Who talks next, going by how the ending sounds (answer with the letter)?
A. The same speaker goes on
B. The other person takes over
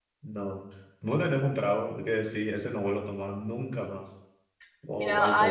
B